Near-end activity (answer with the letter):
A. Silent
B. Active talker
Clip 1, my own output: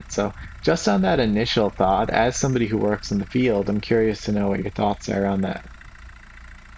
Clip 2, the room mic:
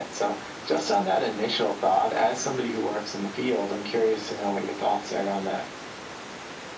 A